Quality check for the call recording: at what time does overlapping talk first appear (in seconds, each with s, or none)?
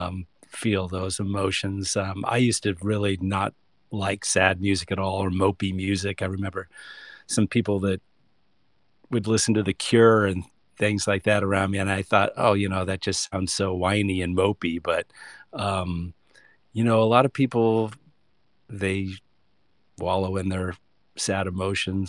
none